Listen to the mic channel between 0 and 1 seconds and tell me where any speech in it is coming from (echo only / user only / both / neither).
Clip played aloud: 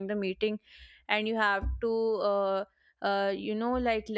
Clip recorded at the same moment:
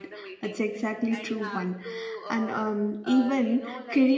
both